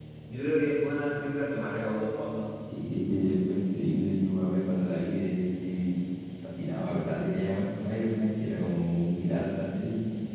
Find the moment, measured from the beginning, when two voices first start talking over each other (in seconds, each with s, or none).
none